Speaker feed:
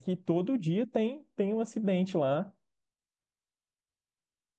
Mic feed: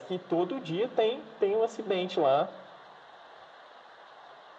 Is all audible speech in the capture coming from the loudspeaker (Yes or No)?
Yes